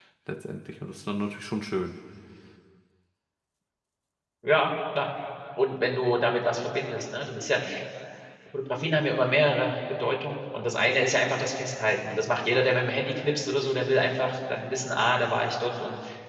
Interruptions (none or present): none